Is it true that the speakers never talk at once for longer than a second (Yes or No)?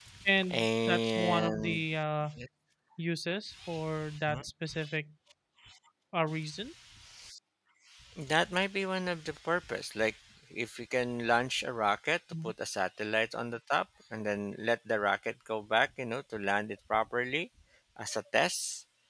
No